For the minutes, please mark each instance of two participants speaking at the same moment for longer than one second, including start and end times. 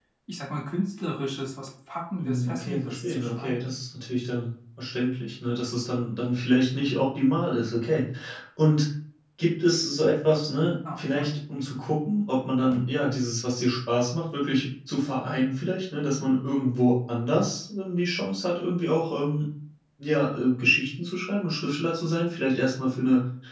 2.2-3.7

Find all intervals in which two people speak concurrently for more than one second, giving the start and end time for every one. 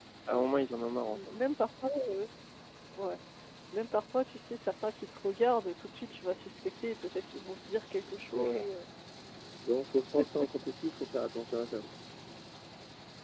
none

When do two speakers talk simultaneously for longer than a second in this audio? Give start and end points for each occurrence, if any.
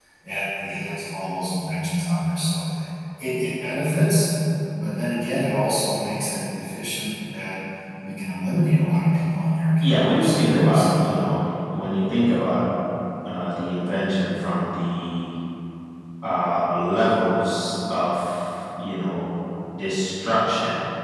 9.8-11.2

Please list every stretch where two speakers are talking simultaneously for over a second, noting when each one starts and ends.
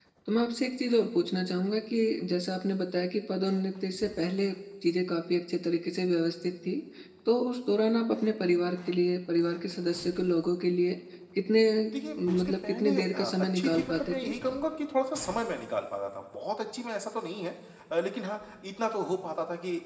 12.2-14.1

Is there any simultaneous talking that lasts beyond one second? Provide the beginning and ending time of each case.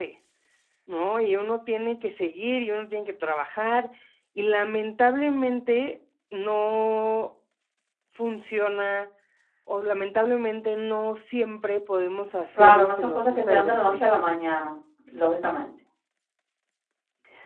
12.5-14.2

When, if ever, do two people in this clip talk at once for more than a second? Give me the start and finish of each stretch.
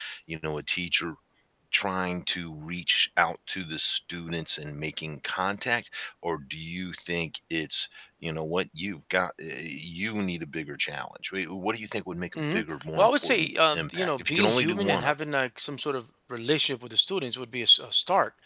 13.0-15.1

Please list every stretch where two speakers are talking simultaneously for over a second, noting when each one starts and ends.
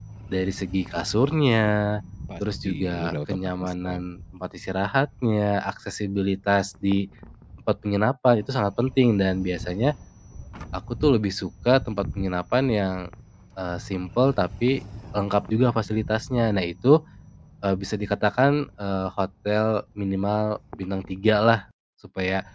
2.6-4.0

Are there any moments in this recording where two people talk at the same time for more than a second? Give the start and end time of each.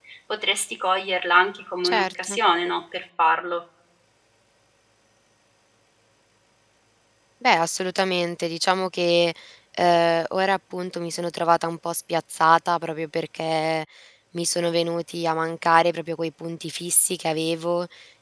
none

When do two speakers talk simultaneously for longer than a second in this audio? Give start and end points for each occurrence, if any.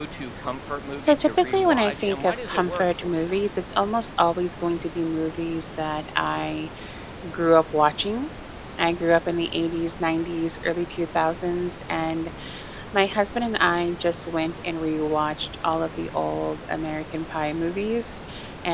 1.0-3.4

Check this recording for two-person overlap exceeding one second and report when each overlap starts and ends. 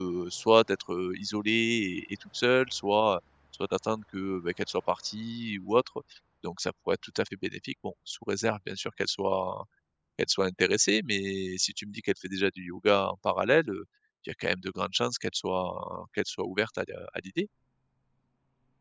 none

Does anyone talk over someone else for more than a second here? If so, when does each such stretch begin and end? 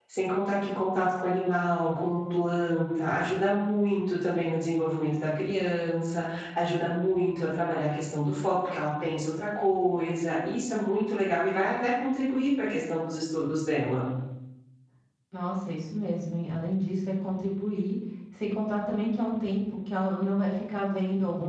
none

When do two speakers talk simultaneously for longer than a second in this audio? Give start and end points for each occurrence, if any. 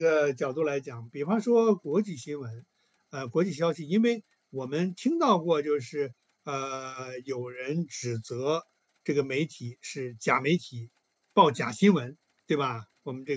none

